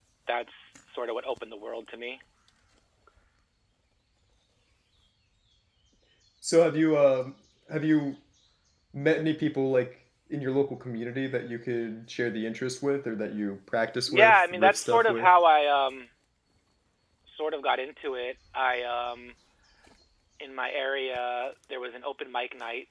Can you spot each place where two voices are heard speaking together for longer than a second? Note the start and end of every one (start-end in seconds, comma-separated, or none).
14.1-15.3